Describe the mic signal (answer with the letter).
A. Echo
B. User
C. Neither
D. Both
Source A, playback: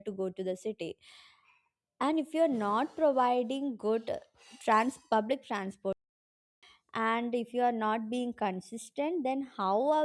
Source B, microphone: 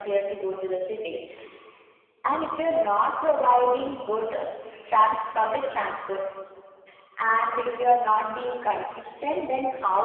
A